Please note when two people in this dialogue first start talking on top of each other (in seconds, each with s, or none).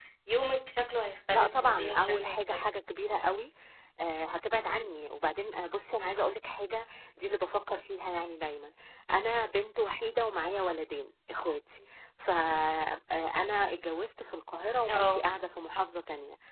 1.3 s